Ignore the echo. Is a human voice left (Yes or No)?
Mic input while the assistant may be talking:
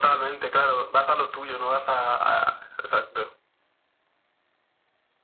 No